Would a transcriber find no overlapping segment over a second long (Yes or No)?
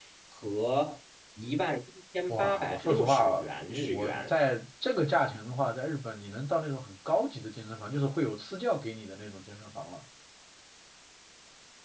No